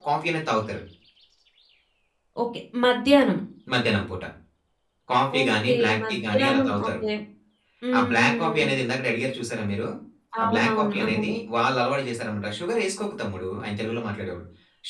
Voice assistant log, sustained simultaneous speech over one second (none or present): present